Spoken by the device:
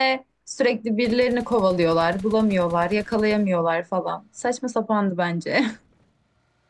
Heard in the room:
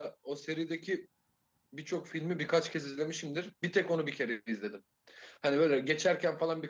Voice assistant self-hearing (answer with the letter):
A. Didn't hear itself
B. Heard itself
A